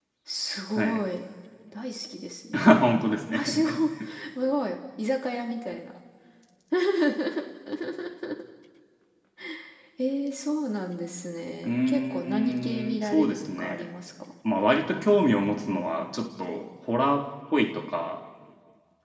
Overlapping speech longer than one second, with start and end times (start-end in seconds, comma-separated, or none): 11.7-13.8